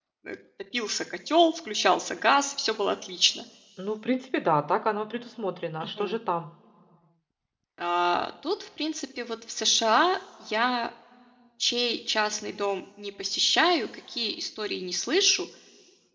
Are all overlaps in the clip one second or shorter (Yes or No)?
Yes